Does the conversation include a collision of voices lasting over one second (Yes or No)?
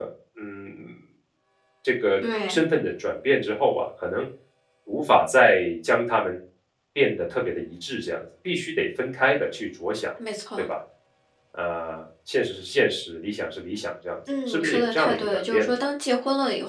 Yes